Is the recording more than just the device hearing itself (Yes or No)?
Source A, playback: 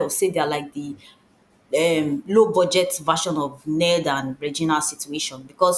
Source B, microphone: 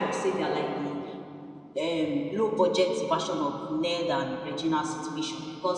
No